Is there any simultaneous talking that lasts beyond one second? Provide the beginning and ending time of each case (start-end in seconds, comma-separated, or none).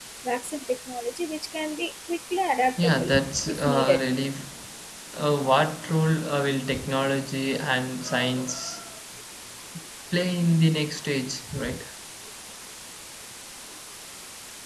2.8-4.0